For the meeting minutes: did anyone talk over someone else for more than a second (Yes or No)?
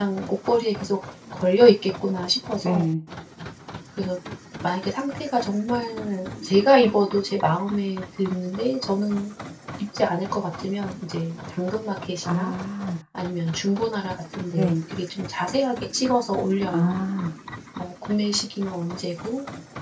No